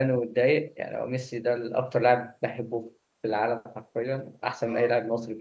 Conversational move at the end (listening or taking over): listening